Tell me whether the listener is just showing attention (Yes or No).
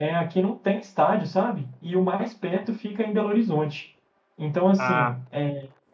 Yes